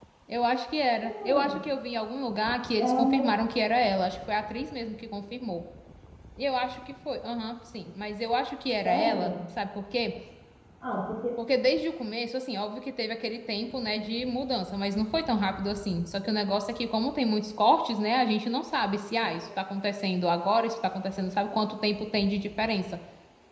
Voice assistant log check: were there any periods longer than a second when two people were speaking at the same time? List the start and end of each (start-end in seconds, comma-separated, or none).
none